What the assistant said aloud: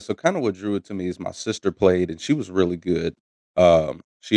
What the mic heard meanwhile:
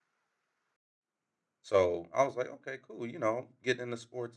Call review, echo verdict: none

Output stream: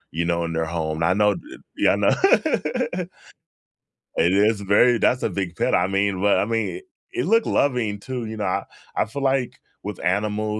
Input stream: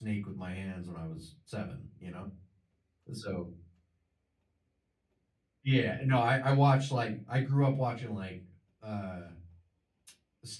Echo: none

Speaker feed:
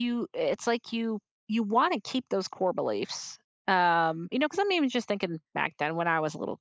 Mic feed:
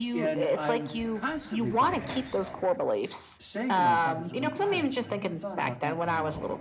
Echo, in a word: present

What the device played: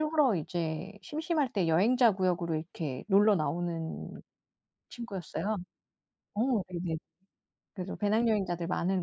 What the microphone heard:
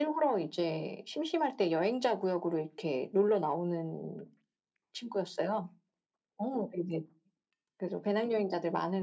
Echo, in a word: present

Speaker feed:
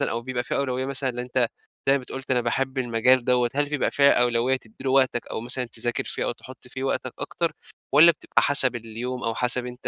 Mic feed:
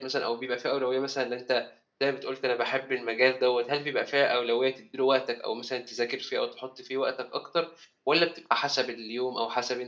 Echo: present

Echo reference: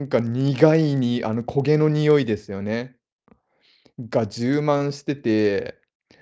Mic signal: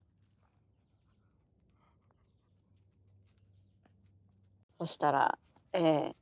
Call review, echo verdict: none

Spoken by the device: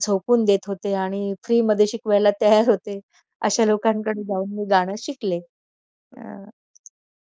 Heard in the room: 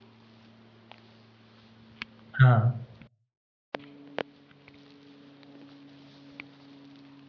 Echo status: none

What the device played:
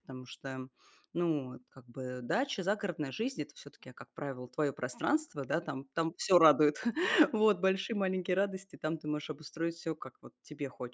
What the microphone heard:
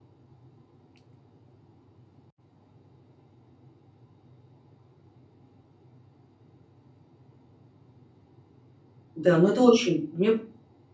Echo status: none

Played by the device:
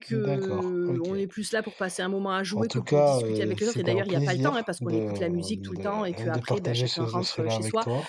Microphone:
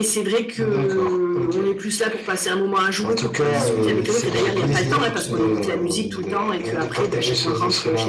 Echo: present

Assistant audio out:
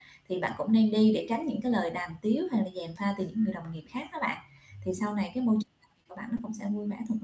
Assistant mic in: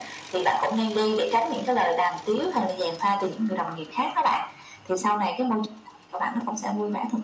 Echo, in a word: present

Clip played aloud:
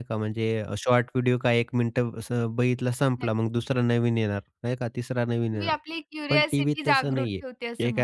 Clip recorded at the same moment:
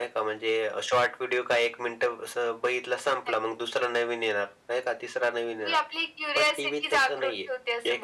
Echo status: present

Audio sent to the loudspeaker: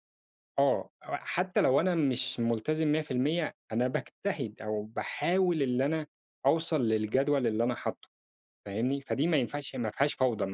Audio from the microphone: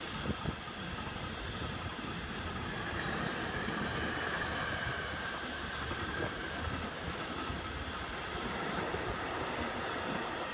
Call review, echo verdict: none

